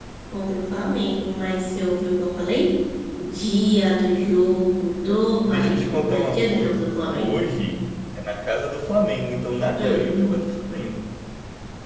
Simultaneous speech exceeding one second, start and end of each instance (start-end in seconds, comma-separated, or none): 5.5-7.3